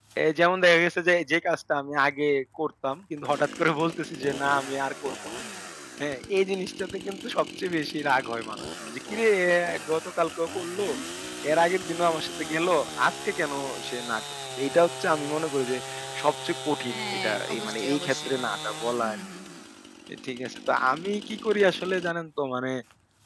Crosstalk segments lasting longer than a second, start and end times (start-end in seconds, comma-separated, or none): 16.9-18.4